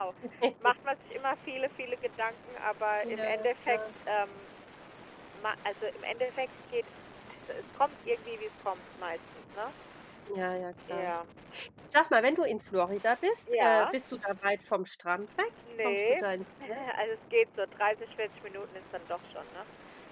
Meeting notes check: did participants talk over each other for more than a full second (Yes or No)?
No